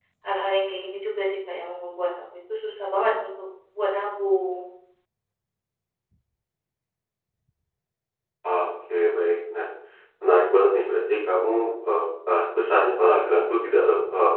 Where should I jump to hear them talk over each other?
none

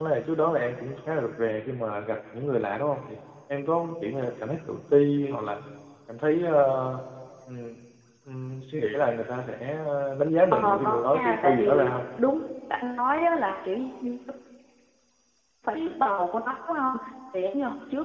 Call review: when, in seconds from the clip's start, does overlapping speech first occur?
10.5 s

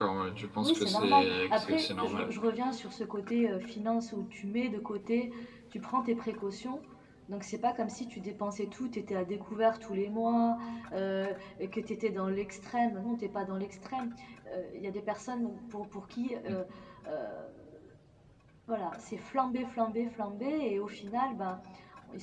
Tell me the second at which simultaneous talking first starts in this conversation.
0.6 s

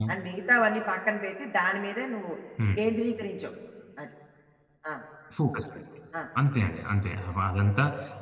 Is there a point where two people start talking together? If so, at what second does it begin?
none

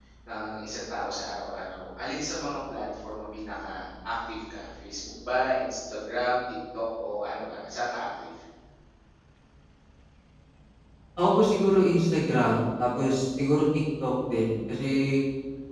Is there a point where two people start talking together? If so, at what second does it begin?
none

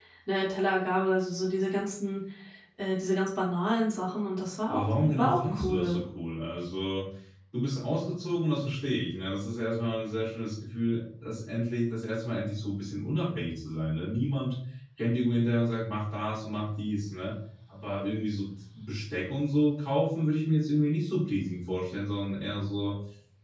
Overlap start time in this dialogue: 4.7 s

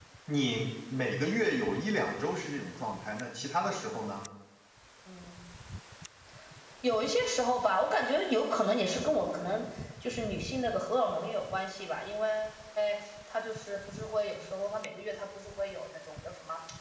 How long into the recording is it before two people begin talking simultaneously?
none

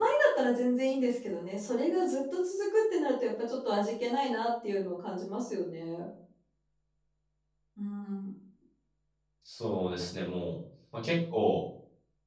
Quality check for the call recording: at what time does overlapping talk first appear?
none

